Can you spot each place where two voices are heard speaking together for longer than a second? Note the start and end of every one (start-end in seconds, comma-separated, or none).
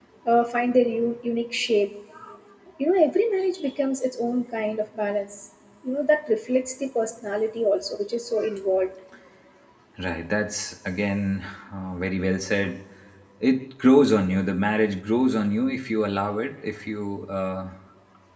none